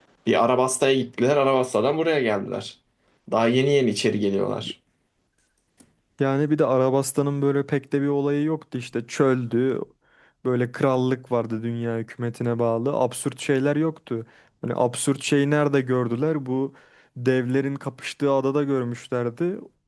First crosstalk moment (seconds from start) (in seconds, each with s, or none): none